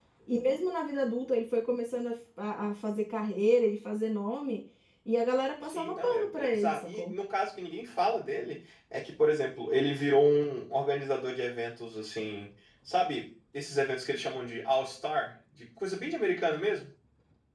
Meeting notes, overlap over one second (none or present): present